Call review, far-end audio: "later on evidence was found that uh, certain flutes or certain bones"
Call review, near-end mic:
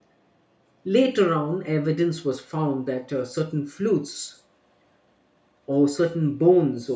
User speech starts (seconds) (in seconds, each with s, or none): none